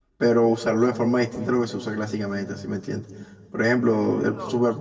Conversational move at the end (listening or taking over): listening